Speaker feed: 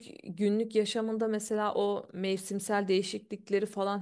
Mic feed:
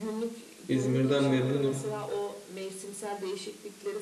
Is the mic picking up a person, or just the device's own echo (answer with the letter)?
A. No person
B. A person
B